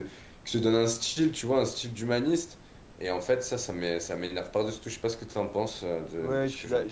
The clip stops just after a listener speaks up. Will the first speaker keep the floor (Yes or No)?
No